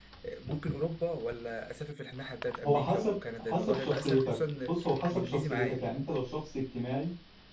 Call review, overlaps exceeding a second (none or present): present